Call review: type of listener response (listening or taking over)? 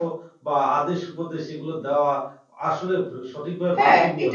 taking over